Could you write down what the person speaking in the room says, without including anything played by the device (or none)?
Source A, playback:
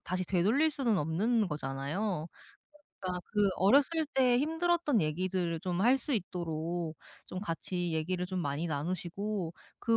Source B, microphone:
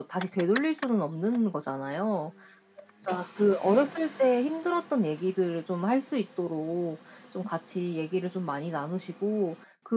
none